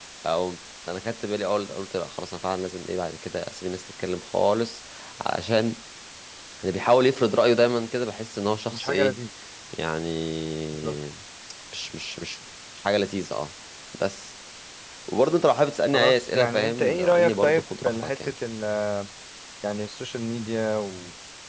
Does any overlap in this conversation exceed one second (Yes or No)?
Yes